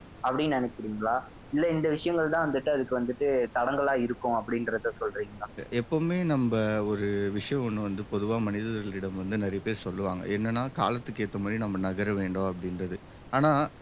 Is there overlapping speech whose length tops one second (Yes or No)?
No